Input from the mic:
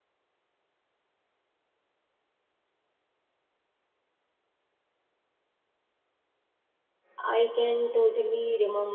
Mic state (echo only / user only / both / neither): user only